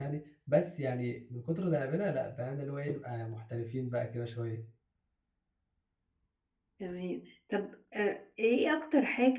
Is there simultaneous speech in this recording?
No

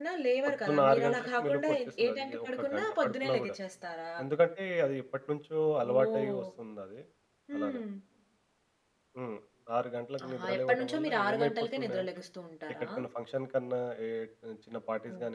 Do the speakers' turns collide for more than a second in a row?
Yes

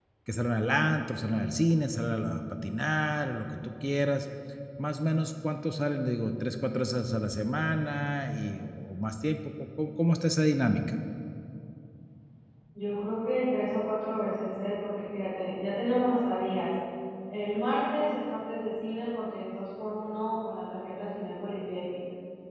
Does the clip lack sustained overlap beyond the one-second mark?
Yes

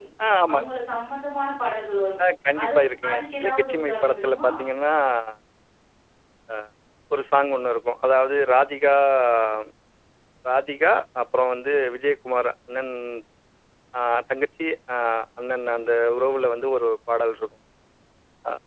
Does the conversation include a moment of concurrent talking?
Yes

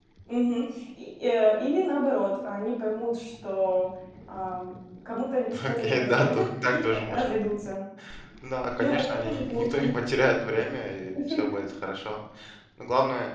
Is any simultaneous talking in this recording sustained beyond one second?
Yes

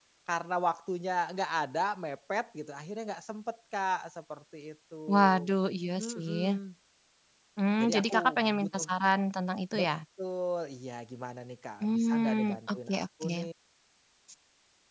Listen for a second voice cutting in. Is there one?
Yes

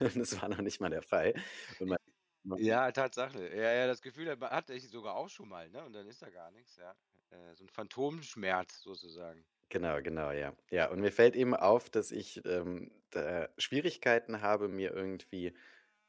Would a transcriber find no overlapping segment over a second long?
Yes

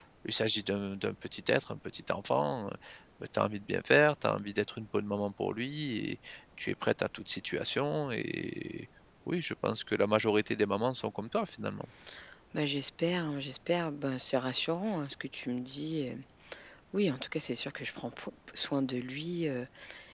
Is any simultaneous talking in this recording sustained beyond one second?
No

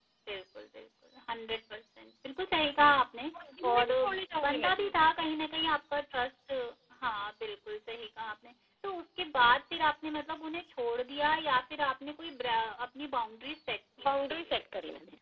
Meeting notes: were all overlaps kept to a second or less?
Yes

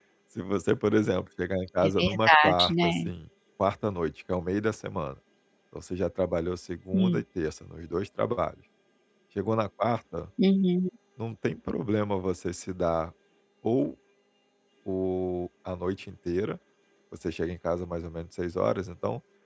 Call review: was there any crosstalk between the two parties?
Yes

